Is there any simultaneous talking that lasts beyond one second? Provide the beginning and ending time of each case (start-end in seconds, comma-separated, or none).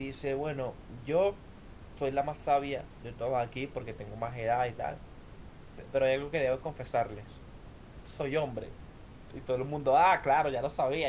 none